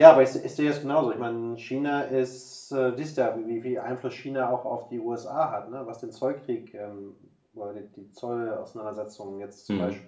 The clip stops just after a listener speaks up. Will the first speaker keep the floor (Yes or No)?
Yes